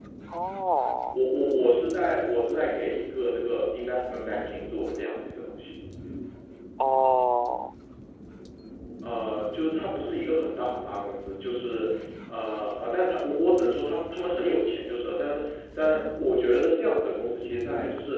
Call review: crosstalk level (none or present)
none